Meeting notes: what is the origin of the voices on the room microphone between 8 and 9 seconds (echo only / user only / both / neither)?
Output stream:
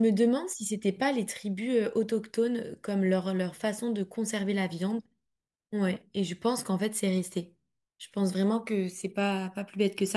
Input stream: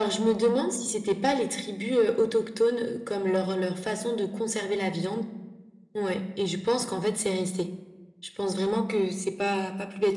echo only